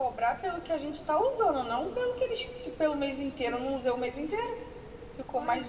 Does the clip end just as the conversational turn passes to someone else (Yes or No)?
No